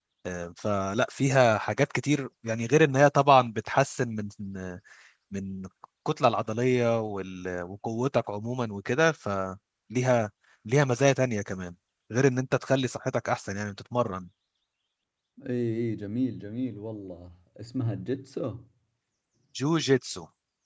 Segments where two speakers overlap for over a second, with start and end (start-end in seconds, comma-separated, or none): none